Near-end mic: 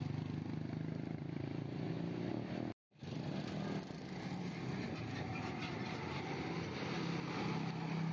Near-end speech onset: none

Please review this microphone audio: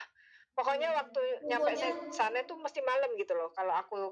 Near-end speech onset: 0.6 s

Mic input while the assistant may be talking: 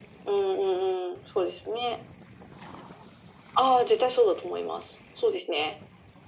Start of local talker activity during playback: none

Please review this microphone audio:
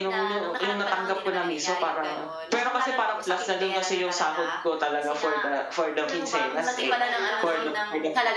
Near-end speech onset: 6.5 s

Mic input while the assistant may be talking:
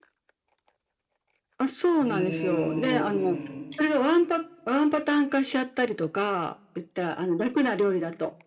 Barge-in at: 2.0 s

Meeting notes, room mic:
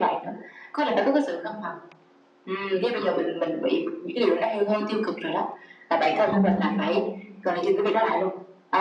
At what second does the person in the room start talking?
6.2 s

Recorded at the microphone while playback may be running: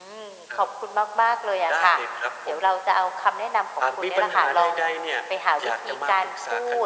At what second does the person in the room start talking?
none

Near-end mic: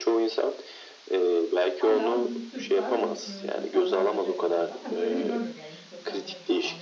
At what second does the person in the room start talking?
1.8 s

